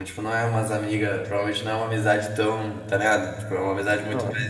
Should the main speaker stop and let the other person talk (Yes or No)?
No